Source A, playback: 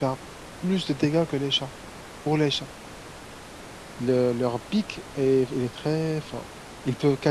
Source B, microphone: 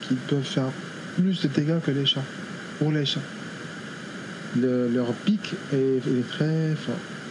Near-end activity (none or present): none